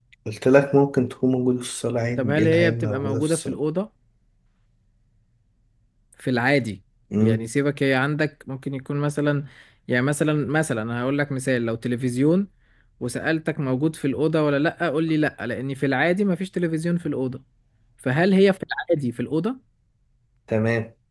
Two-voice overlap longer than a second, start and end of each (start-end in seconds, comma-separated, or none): 2.2-3.6